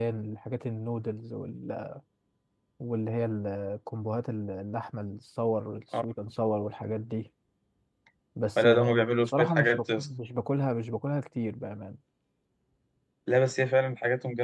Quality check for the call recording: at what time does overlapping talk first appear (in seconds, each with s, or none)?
8.6 s